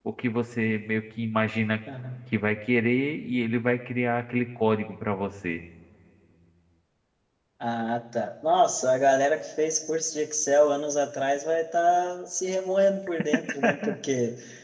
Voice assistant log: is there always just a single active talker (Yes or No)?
Yes